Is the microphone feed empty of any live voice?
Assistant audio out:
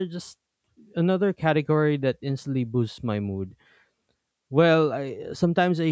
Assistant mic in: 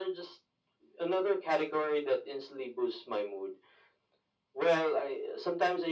Yes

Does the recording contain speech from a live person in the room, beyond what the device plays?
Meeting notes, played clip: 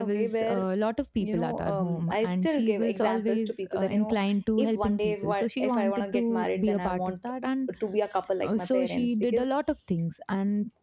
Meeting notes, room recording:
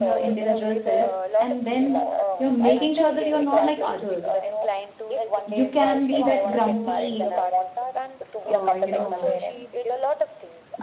Yes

